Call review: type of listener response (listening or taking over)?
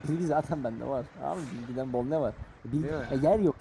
listening